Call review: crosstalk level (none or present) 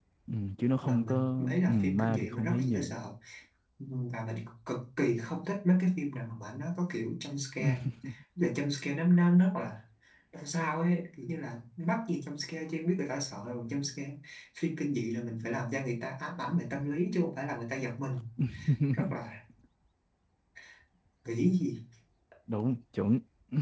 present